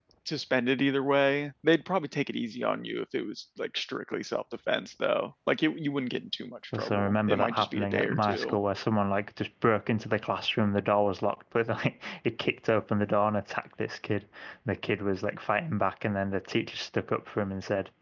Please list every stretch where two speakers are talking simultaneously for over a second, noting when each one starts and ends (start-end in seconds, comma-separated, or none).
6.7-8.6